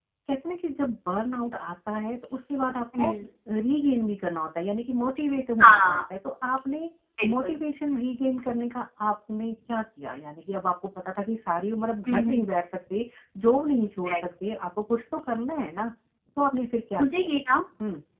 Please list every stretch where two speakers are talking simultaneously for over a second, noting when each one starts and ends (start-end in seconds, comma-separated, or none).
none